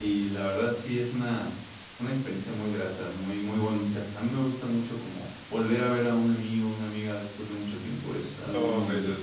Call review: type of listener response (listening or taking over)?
taking over